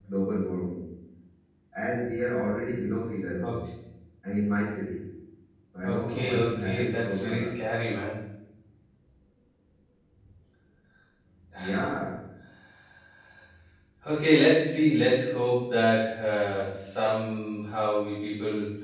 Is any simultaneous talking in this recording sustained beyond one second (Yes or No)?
Yes